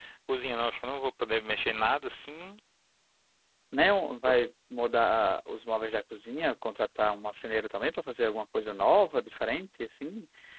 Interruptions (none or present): none